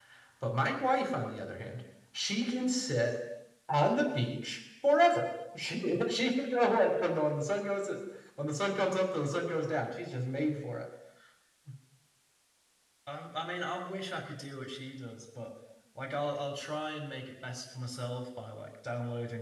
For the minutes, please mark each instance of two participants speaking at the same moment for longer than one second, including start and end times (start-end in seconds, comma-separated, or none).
none